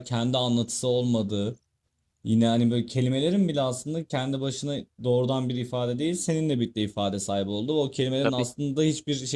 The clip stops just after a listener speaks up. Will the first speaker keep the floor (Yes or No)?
Yes